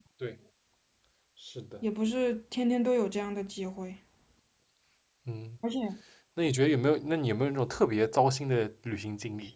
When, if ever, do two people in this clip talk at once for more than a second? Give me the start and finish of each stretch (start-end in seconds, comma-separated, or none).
none